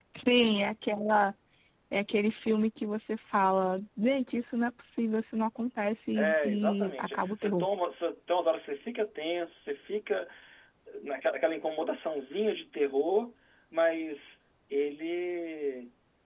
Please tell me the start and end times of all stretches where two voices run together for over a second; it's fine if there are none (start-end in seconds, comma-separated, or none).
6.2-7.7